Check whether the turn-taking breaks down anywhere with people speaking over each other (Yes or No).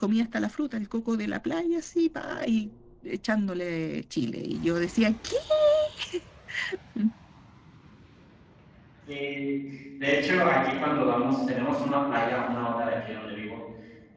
No